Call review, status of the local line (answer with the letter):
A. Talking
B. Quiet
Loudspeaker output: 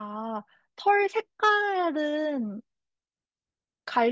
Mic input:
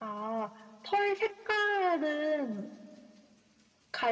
B